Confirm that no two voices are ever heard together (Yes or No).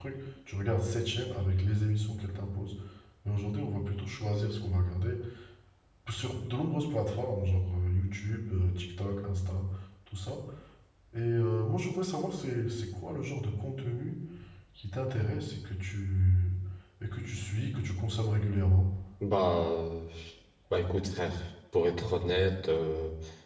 Yes